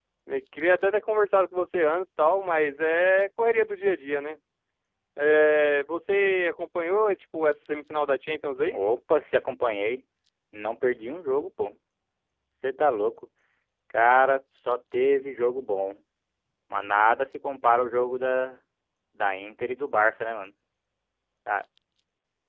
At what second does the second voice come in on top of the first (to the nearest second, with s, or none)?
none